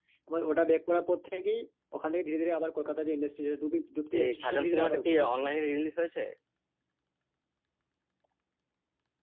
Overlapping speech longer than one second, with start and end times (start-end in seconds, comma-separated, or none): 4.2-5.4